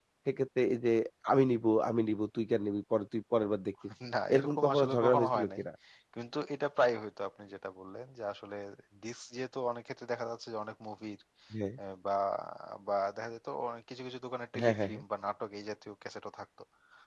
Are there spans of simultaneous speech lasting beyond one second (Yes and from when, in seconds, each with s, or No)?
Yes, from 4.3 s